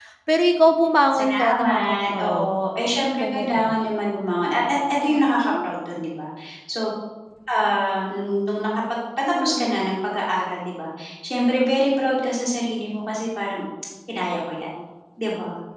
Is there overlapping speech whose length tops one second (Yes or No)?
Yes